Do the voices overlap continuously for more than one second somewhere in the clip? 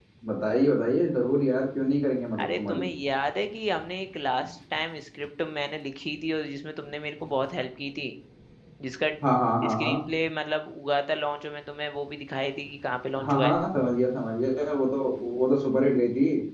No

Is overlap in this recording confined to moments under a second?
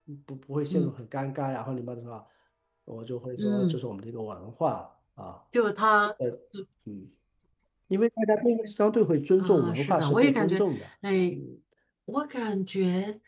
No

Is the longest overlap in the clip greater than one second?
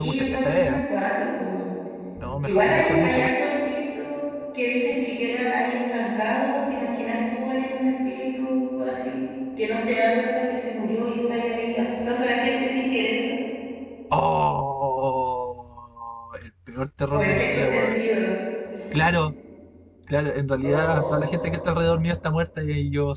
Yes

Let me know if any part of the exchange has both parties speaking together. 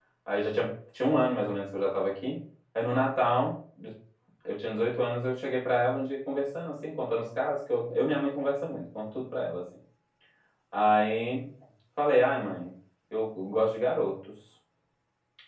No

